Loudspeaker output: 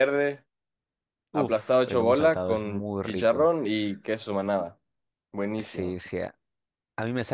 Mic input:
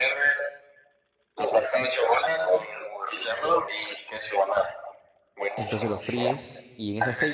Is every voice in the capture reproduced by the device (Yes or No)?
No